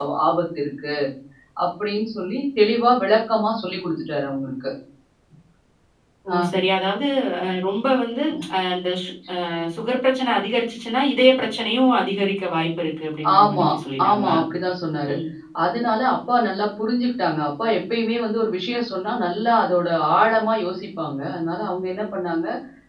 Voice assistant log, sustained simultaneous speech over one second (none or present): none